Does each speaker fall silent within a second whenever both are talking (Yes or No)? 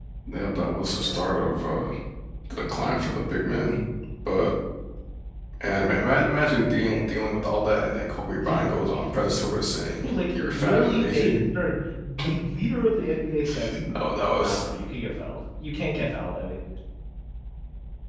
No